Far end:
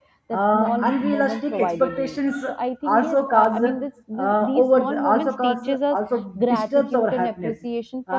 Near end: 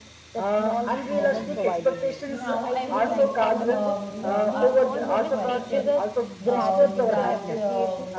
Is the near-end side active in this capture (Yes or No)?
Yes